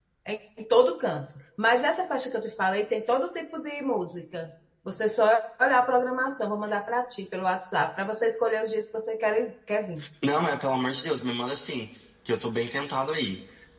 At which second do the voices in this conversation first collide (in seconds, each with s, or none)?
none